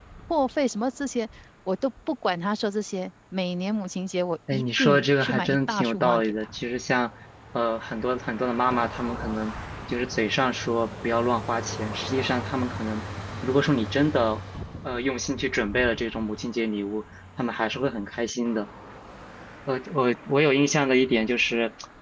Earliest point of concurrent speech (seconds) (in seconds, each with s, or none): 4.5 s